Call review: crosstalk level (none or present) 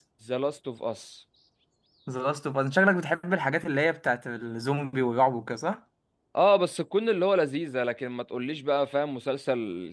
none